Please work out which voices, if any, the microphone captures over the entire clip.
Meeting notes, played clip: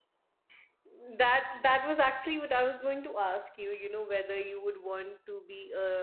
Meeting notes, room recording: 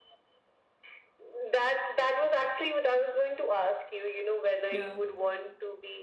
both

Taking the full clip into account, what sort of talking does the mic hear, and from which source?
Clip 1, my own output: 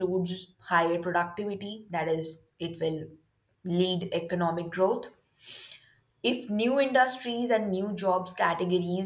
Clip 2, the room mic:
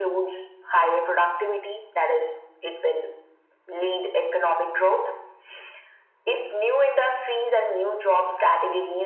echo only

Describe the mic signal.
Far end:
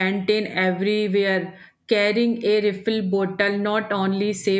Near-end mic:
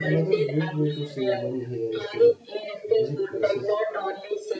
both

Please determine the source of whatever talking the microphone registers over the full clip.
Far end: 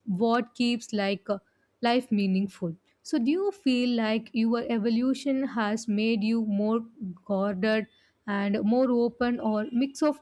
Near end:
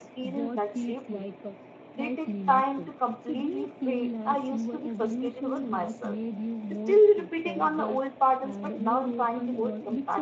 both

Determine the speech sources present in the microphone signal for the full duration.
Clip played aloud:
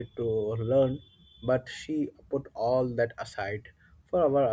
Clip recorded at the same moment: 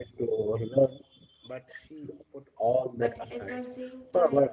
both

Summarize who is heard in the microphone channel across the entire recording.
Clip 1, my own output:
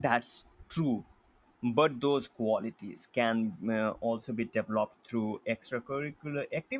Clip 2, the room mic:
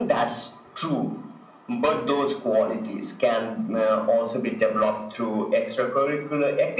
echo only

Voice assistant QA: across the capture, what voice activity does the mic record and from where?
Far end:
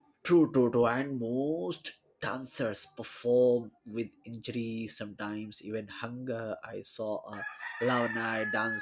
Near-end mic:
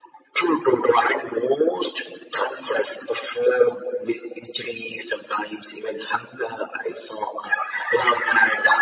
echo only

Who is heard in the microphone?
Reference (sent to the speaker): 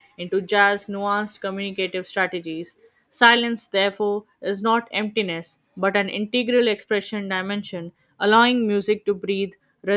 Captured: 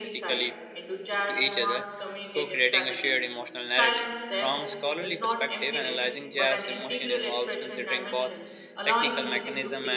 both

